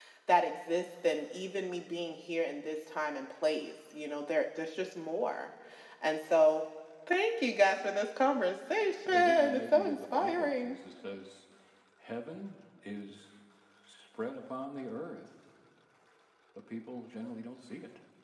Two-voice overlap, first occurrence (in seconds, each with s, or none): 9.0 s